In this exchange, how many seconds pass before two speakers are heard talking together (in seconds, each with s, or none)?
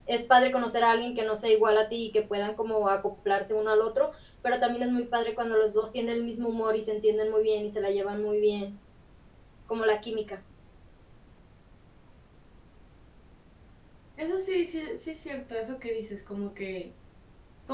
none